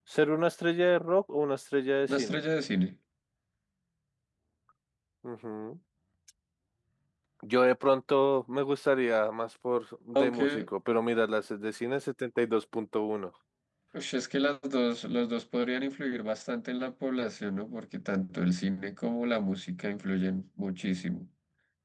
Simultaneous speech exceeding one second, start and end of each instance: none

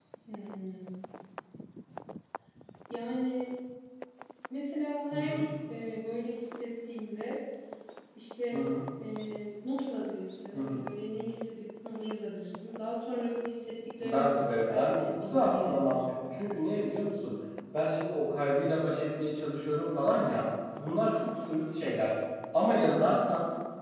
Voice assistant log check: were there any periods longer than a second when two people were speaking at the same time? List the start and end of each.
14.0-16.0

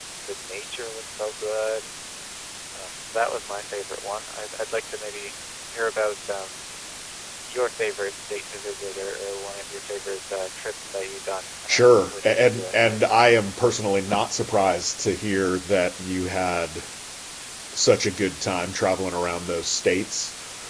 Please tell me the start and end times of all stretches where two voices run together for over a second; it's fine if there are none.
11.7-13.0

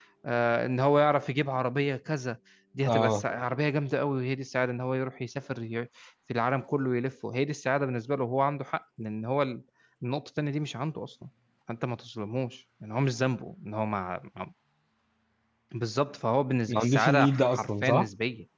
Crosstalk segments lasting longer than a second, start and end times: 16.7-18.1

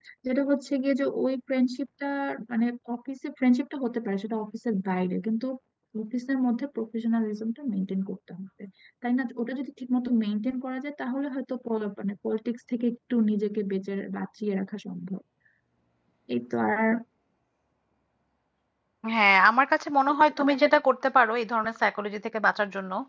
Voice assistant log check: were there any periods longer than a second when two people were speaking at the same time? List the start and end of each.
none

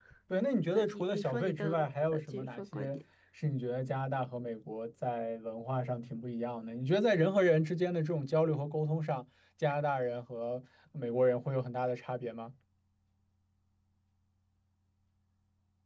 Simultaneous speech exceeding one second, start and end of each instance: 0.7-3.0

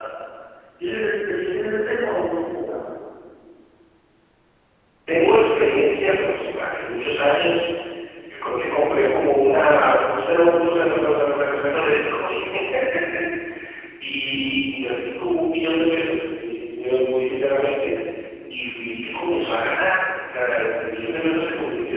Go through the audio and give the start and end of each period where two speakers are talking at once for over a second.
none

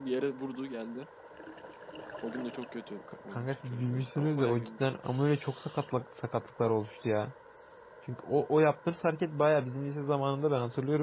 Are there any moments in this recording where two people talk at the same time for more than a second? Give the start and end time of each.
3.3-4.9

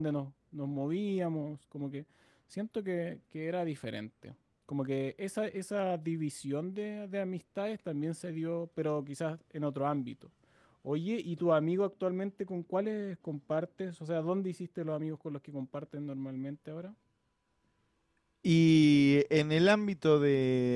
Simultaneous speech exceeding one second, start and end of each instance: none

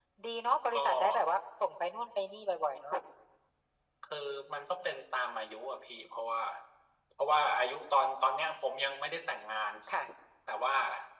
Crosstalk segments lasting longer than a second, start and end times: none

